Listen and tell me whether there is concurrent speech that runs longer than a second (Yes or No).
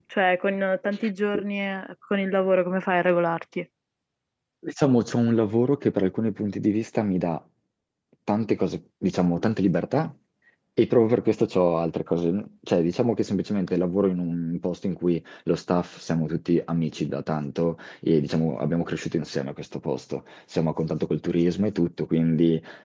No